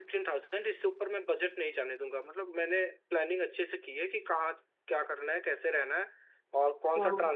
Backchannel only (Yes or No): Yes